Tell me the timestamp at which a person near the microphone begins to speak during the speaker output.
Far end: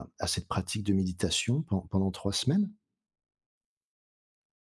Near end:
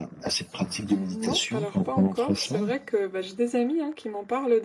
0.9 s

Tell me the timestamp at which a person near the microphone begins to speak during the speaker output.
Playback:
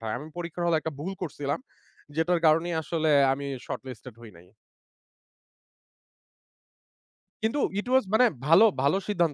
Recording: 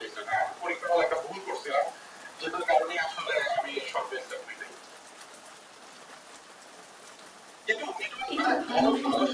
8.3 s

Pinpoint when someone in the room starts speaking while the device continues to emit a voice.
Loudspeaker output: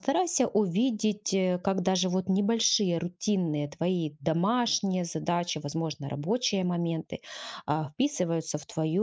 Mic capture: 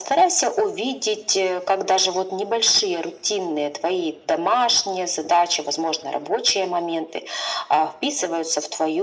none

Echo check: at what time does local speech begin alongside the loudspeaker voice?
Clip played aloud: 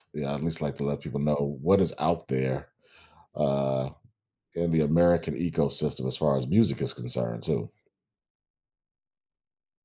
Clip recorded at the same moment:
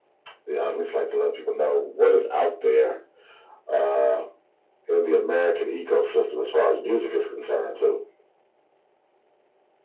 none

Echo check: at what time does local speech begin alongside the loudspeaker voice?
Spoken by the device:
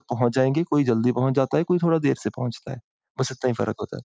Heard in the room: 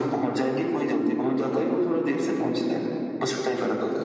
none

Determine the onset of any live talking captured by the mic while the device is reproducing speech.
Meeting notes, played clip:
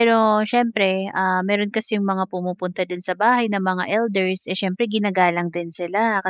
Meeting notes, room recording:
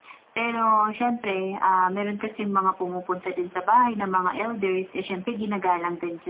none

